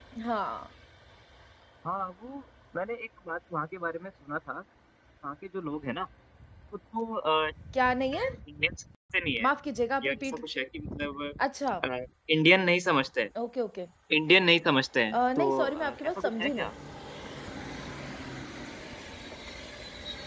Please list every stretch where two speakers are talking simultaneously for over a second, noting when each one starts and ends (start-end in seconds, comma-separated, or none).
15.1-16.7